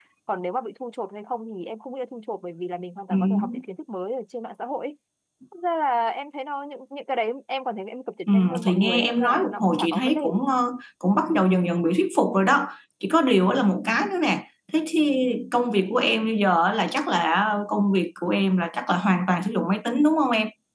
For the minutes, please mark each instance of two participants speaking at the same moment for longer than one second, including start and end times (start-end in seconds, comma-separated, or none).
8.3-10.4